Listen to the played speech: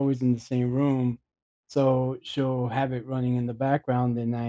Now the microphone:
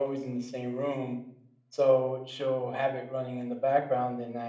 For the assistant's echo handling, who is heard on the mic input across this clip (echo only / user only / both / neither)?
echo only